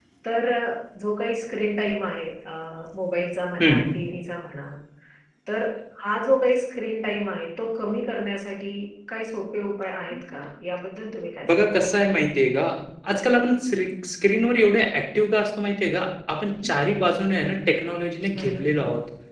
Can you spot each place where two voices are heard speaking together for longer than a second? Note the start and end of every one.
none

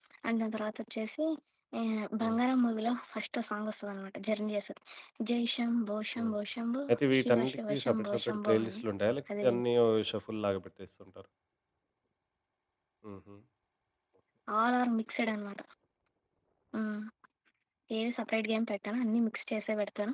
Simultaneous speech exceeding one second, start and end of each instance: 6.9-8.8

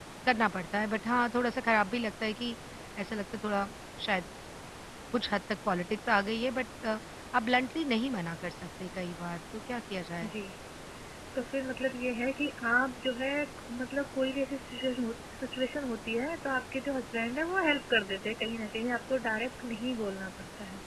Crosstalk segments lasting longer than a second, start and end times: none

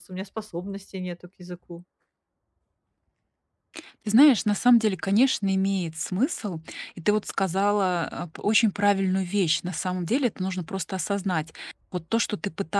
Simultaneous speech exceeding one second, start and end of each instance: none

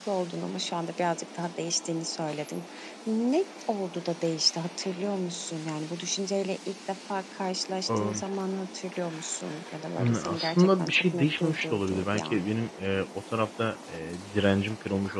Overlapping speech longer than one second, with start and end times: 10.0-12.4

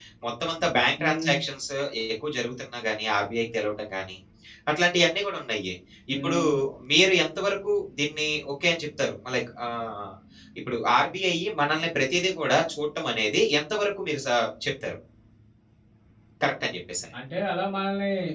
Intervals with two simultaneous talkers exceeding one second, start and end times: none

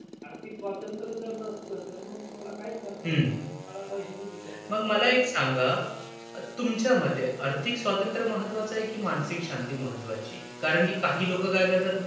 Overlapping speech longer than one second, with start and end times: none

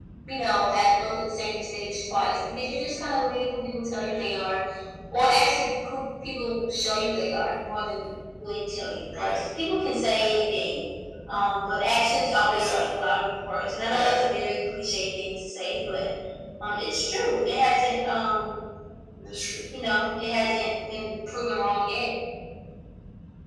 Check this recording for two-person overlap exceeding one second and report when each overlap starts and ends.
none

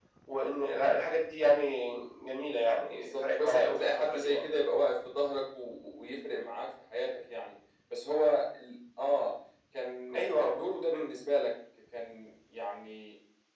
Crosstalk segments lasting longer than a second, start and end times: 2.9-4.4

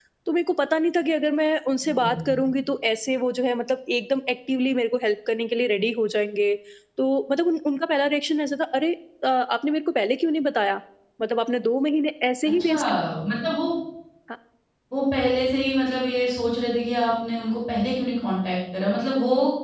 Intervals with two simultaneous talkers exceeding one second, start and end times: none

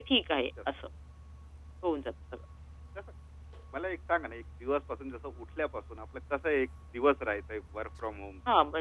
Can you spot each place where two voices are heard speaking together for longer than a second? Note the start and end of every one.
none

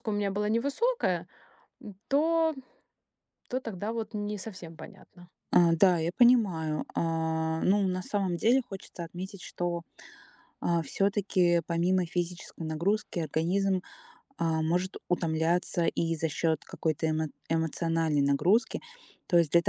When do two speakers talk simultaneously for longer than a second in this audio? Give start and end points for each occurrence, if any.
none

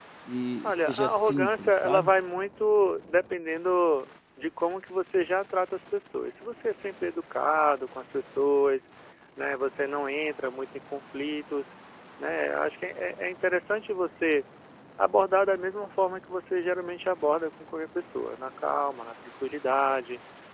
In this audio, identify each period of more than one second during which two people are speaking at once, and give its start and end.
0.6-2.1

